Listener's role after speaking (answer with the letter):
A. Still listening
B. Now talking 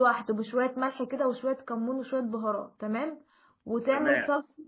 A